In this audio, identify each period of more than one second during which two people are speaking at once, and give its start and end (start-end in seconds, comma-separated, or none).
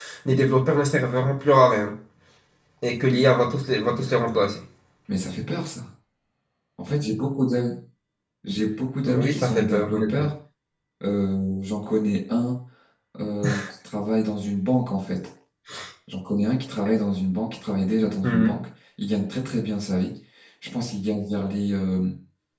9.0-10.3